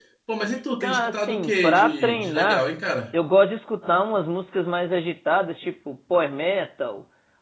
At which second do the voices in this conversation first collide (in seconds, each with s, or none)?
0.8 s